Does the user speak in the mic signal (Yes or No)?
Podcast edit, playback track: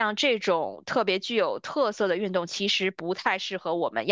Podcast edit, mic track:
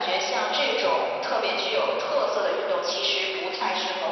No